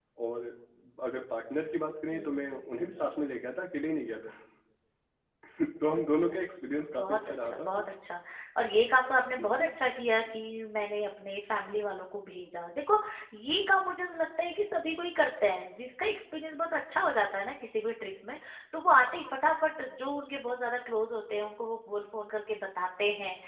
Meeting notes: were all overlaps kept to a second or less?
No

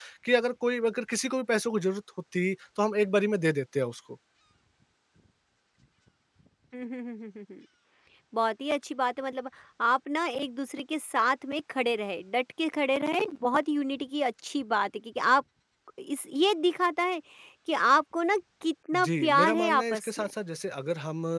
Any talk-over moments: Yes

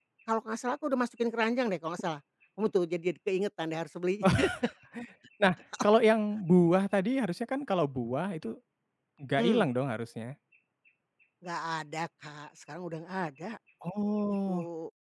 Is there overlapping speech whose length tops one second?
No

